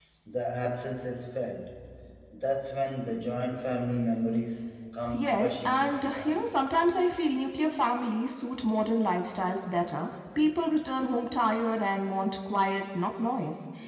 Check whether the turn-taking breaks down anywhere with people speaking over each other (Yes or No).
Yes